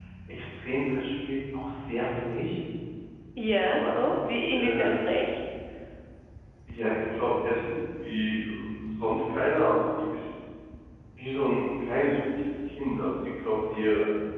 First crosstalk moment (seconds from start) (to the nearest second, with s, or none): 4 s